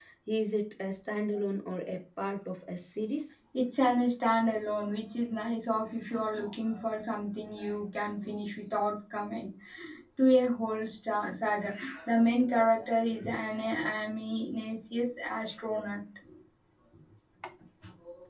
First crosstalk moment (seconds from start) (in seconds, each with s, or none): none